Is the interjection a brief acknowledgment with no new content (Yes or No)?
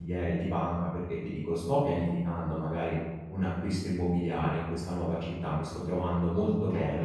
Yes